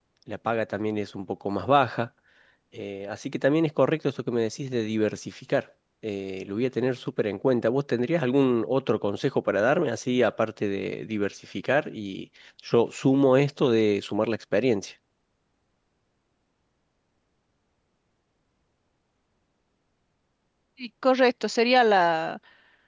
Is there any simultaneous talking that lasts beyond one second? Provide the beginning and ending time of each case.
none

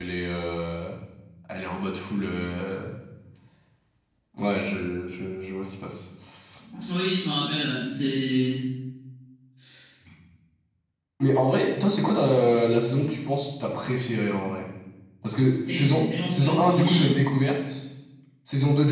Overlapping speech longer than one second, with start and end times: 15.6-17.1

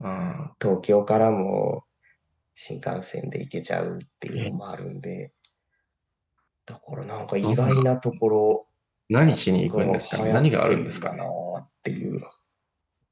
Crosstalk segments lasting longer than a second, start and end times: 9.6-11.2

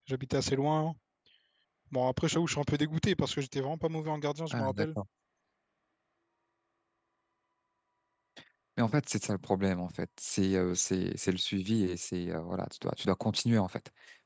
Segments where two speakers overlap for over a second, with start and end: none

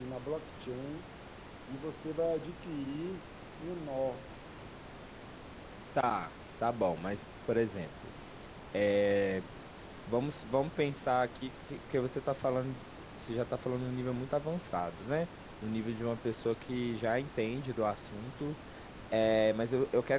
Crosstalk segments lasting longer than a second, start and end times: none

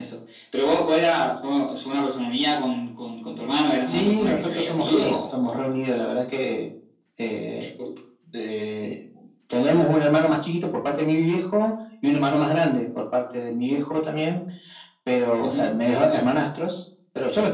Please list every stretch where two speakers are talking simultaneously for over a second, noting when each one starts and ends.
3.9-5.7

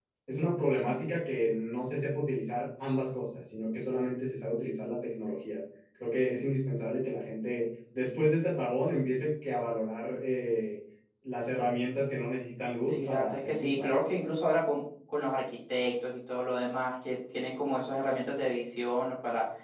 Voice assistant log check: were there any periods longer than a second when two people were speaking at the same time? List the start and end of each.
12.9-14.3

